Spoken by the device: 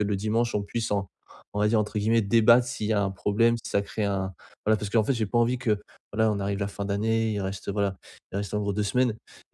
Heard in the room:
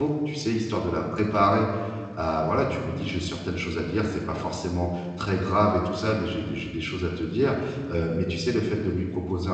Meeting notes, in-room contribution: present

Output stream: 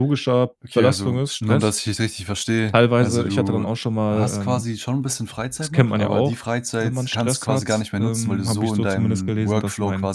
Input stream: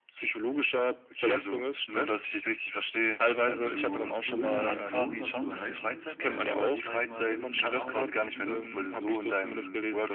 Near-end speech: present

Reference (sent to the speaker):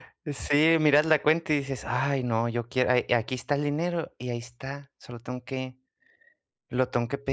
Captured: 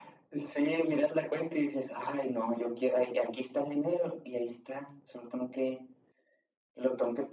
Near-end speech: none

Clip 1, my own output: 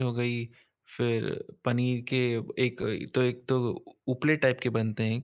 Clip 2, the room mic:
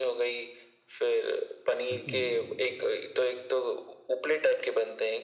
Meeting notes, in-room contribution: present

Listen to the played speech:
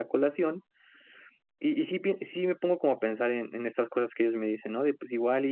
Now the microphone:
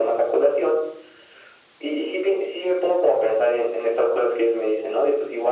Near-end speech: none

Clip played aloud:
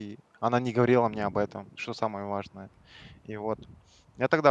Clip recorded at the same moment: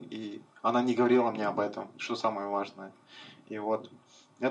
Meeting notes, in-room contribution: none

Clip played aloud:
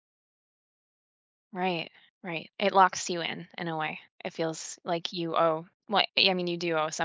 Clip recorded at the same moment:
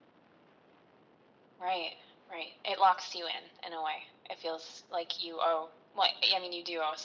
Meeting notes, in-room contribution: none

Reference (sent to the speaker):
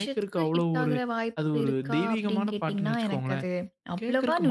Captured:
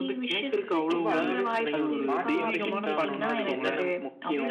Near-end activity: present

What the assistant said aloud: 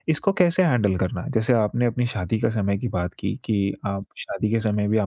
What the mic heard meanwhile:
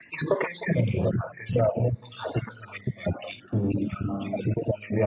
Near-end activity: none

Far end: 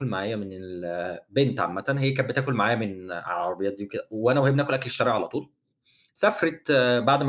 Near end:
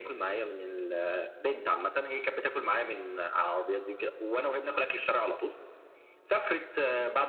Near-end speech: none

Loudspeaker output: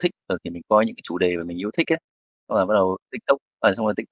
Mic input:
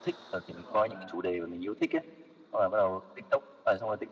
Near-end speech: present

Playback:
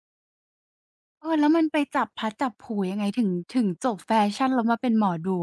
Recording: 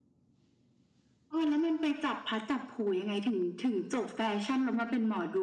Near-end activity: none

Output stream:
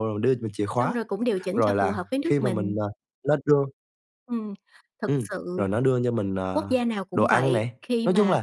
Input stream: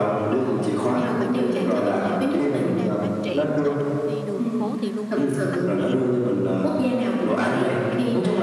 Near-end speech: present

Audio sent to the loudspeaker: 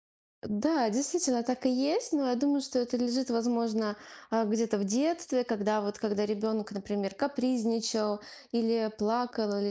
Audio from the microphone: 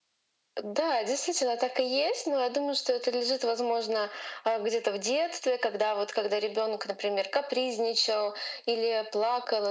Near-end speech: none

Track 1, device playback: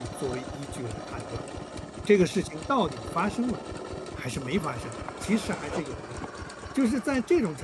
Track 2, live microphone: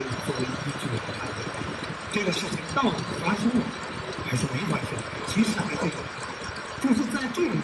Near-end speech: none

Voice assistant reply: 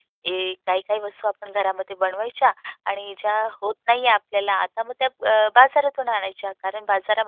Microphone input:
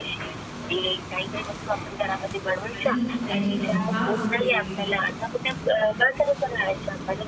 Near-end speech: present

